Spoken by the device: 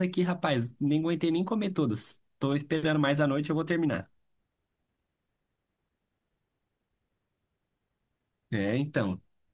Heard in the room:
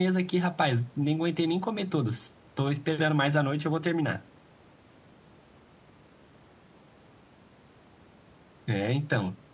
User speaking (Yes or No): No